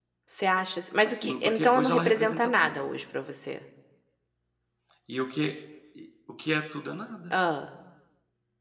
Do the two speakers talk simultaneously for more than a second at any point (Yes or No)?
Yes